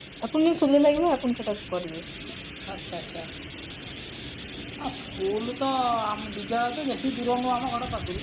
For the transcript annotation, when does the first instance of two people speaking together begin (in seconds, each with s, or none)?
none